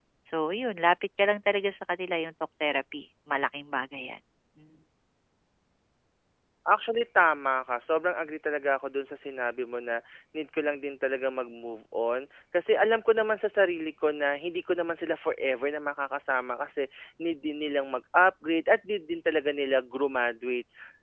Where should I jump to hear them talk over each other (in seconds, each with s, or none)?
none